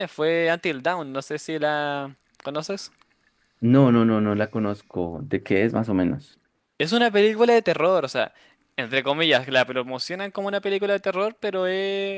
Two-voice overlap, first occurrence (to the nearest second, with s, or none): none